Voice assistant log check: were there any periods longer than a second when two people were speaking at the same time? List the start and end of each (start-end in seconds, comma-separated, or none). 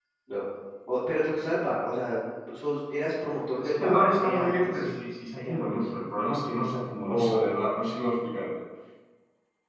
3.6-4.8